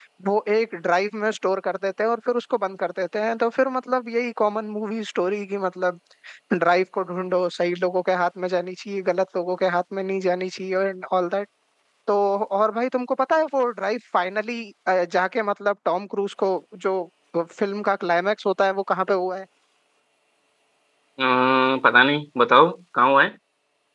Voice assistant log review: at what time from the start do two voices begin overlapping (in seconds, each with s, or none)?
none